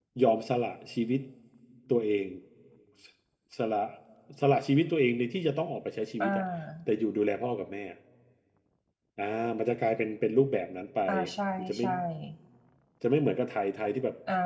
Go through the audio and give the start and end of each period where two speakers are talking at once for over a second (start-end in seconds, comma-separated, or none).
none